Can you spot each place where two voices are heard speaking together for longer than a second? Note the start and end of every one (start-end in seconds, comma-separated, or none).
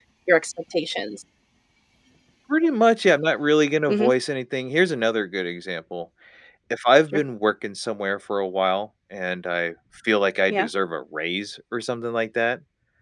none